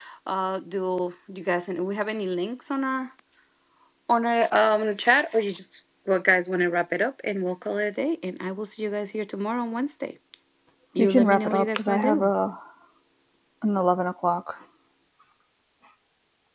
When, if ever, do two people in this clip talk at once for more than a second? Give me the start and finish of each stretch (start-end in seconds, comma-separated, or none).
11.0-12.3